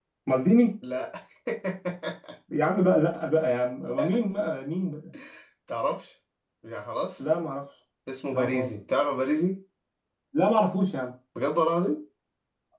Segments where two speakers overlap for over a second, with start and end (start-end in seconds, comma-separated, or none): none